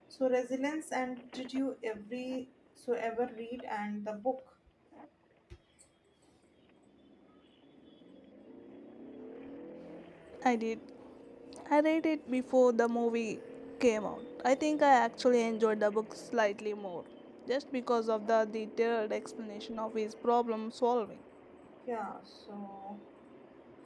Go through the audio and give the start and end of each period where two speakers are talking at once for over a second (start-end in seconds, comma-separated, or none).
none